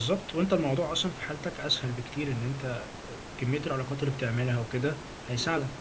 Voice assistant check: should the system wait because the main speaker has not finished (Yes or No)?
No